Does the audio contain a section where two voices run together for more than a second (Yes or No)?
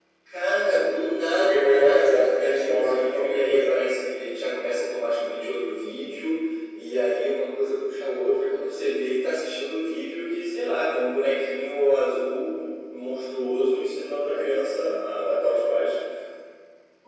Yes